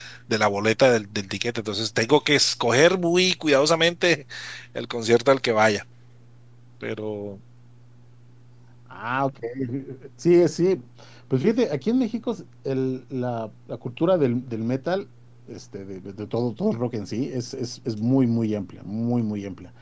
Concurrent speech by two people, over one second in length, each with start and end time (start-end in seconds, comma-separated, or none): none